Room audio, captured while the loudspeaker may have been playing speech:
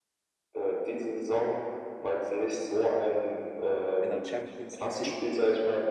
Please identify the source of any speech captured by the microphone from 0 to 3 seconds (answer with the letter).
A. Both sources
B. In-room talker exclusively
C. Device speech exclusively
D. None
C